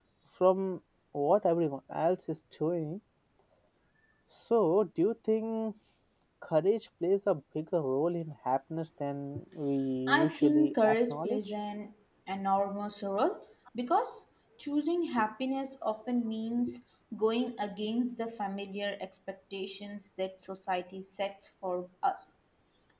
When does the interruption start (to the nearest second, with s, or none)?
10 s